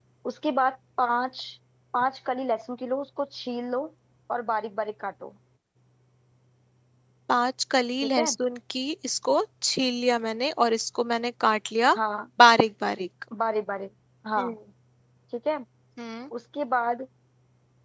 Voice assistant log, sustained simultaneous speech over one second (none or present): none